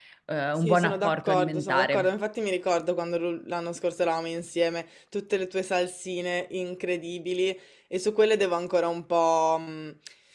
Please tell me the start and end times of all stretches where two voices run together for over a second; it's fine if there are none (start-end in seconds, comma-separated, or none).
0.6-2.1